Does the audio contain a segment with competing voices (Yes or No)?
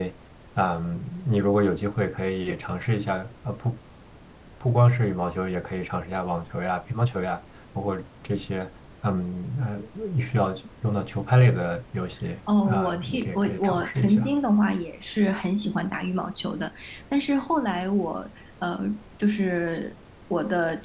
Yes